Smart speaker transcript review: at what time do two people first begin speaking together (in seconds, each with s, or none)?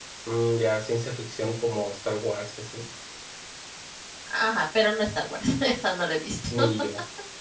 none